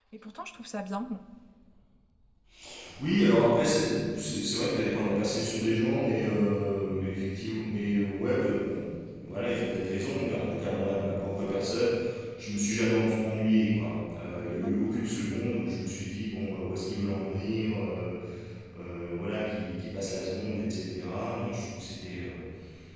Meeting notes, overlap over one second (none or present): none